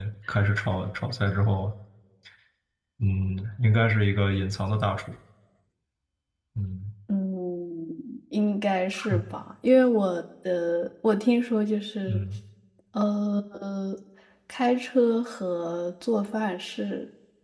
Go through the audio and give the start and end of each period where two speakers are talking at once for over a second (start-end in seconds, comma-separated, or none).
none